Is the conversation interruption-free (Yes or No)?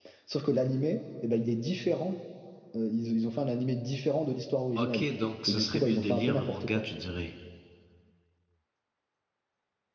No